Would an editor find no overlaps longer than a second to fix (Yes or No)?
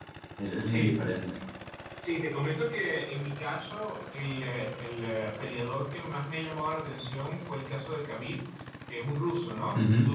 Yes